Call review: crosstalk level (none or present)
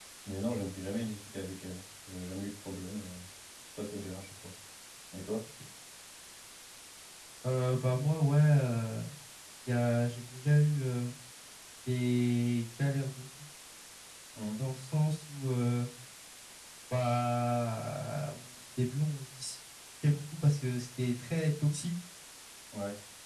none